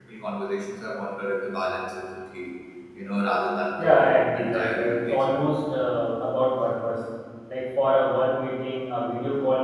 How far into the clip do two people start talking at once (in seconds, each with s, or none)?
3.8 s